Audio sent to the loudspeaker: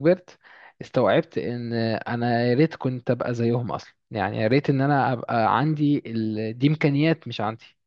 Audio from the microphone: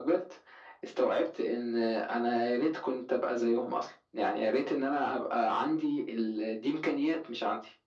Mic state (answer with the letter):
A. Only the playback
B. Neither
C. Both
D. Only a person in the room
A